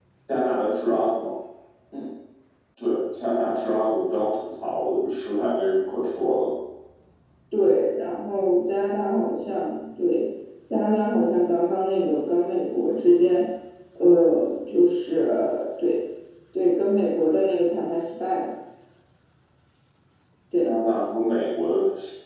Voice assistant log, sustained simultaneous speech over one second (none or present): none